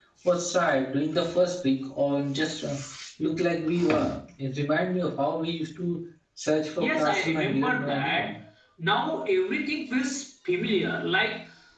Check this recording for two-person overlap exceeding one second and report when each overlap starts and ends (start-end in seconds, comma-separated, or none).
6.8-8.3